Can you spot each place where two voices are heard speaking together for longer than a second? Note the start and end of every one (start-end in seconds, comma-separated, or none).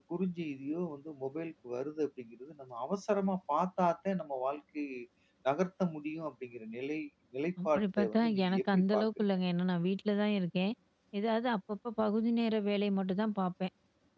7.6-9.2